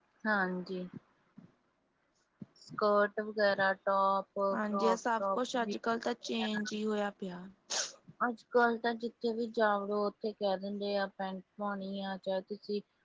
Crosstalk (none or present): present